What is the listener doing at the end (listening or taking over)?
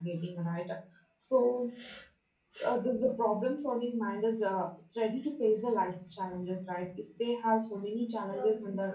listening